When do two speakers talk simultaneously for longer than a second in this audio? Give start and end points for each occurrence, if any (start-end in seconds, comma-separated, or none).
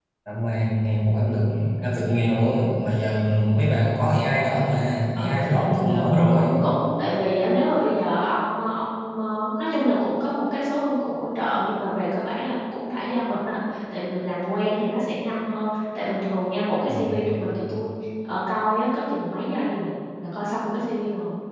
5.2-6.6